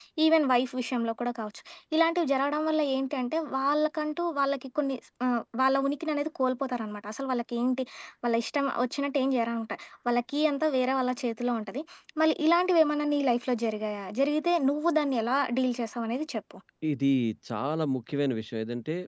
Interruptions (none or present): none